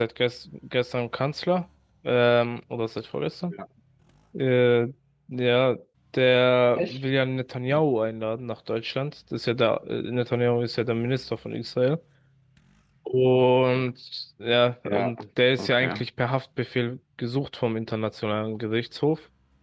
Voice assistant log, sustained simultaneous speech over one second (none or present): none